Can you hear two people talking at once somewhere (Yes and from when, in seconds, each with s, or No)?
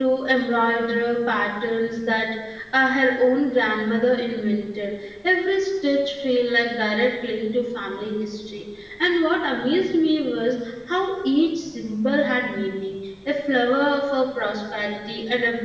No